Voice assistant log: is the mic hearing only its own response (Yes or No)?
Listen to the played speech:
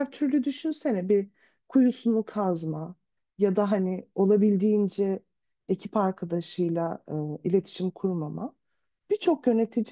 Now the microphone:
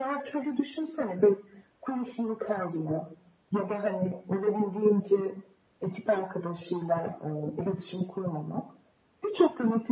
Yes